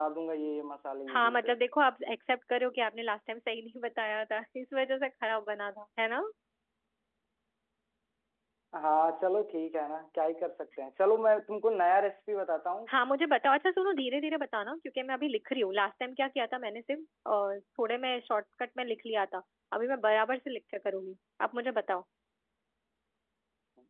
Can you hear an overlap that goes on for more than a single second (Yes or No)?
No